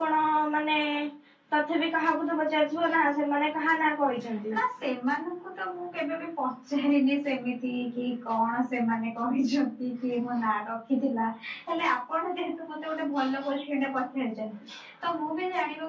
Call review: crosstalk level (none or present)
none